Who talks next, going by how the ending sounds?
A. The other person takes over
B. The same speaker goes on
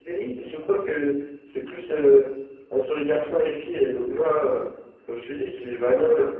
B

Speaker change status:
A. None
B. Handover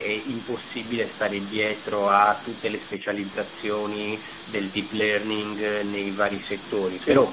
A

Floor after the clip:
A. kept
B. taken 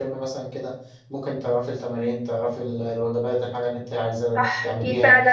B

